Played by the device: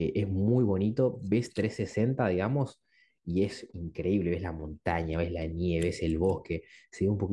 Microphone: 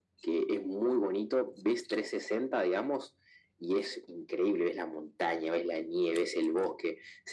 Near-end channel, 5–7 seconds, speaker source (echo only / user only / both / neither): echo only